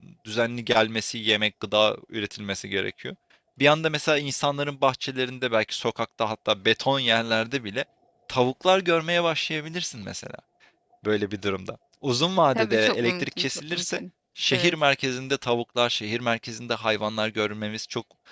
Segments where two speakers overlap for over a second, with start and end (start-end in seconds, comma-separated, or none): 12.6-14.0